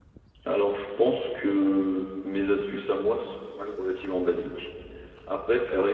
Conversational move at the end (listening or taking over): listening